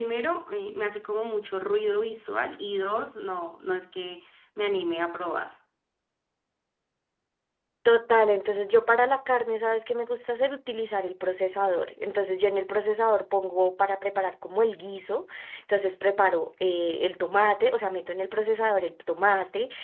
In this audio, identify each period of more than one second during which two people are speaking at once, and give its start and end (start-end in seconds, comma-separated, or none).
none